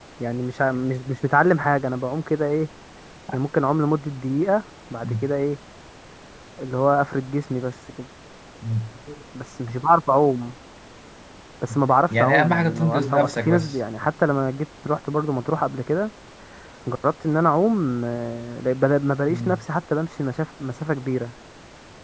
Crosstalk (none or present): present